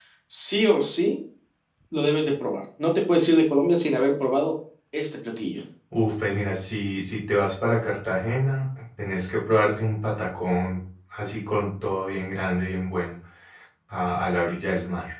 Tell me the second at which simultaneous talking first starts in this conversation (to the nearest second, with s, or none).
none